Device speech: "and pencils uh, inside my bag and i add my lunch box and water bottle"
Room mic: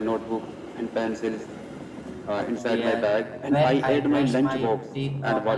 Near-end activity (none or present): present